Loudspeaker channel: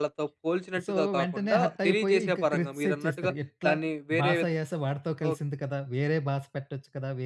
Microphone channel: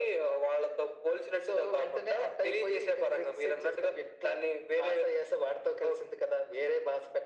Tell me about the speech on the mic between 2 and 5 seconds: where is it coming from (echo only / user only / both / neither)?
echo only